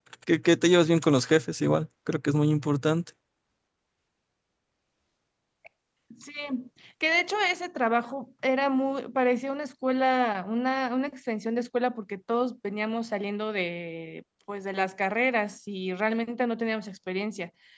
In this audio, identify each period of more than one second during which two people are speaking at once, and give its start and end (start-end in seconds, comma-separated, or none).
none